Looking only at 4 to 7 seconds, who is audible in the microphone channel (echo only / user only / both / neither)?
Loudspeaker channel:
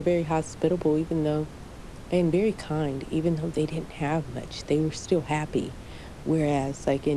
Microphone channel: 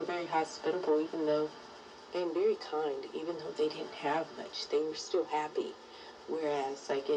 echo only